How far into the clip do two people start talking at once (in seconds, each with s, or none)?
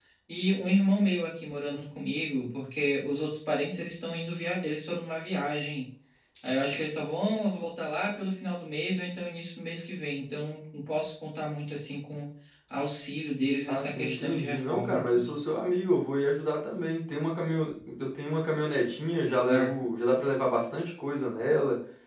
13.7 s